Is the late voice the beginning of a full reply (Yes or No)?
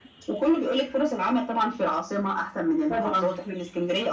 No